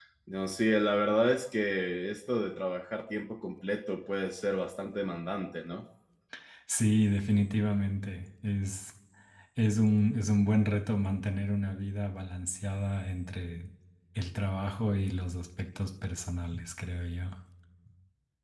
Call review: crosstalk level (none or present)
none